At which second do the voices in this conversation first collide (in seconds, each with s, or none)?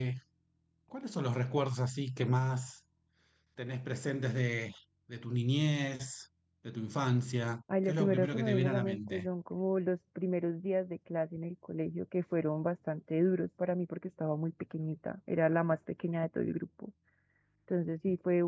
7.7 s